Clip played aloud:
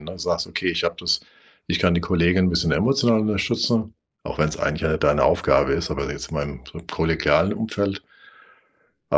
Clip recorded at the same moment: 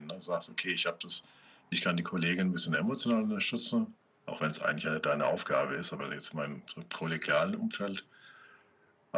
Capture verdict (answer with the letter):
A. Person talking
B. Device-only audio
B